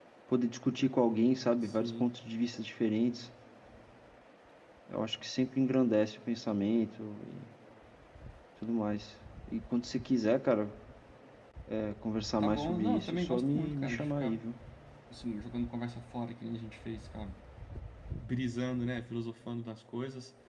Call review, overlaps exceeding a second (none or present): present